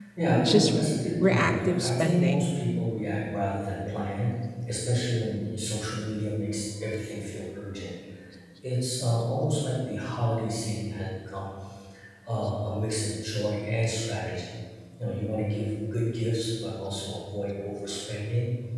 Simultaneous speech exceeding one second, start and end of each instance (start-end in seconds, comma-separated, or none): 1.2-2.5